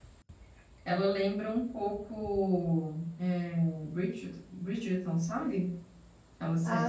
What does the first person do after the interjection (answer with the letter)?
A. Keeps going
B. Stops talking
B